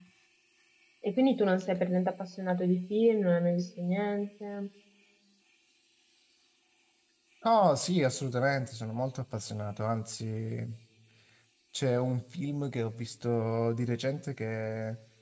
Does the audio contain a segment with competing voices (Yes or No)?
No